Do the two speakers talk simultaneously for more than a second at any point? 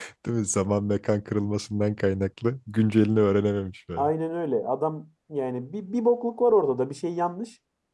No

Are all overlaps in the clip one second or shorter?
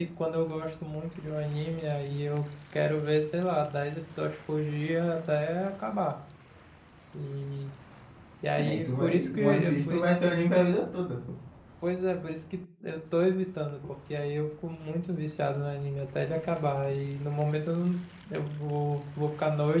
No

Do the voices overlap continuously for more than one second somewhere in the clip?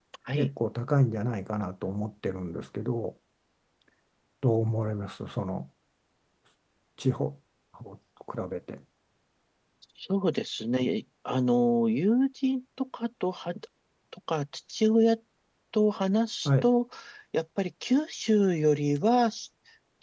No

